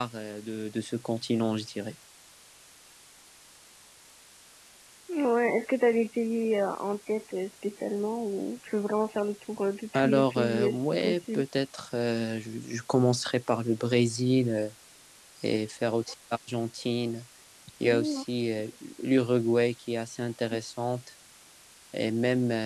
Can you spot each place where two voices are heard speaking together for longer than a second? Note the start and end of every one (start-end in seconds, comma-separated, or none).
9.9-11.4